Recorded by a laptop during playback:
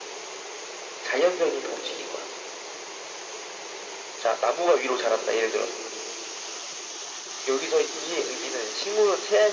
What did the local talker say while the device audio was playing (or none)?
none